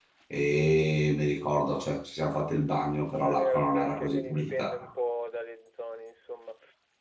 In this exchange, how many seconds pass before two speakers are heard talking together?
3.2 s

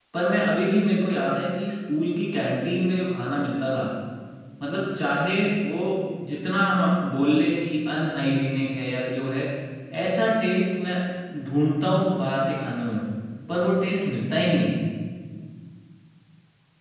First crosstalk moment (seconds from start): none

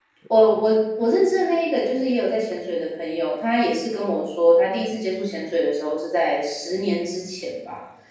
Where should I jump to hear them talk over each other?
none

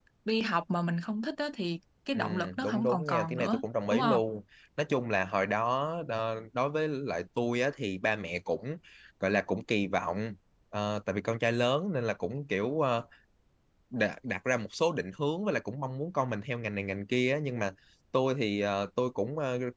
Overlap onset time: 2.1 s

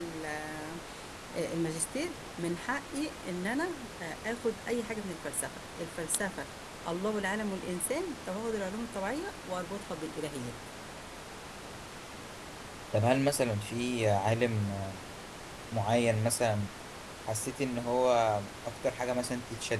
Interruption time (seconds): none

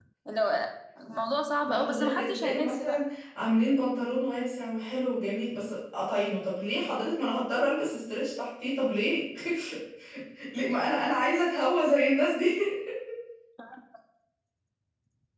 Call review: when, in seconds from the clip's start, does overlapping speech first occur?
1.7 s

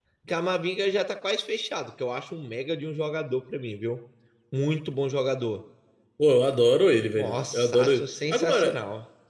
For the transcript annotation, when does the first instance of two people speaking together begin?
7.2 s

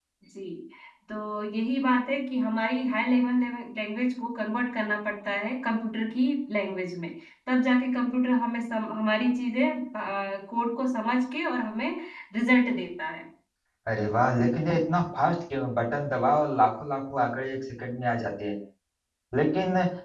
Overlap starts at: none

